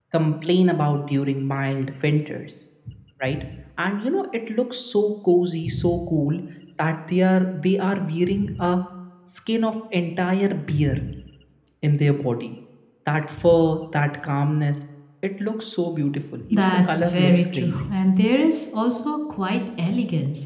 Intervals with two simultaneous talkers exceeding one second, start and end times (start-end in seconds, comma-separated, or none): 16.5-17.9